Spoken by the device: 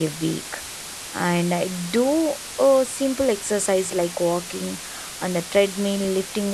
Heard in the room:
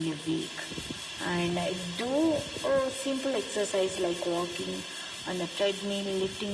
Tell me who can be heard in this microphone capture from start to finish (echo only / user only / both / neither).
echo only